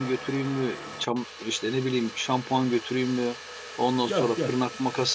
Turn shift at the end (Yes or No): No